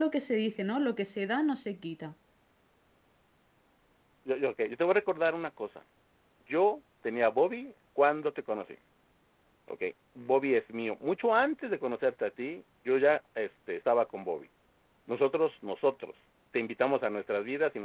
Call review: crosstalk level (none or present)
none